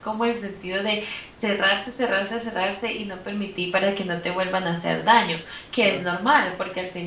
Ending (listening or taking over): listening